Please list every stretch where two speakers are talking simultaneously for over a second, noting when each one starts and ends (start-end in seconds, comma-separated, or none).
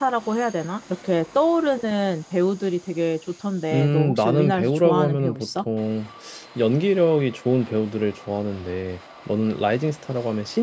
3.7-5.5